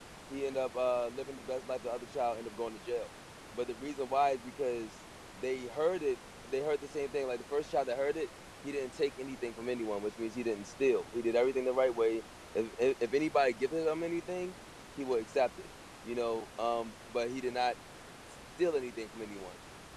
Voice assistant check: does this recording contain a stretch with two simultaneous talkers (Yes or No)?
No